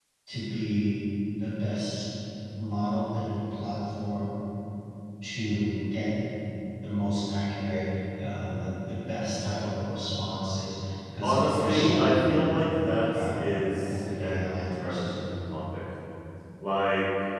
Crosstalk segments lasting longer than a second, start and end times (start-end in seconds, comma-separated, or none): 11.2-13.4, 13.9-15.1